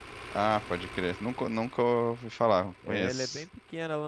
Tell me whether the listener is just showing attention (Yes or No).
No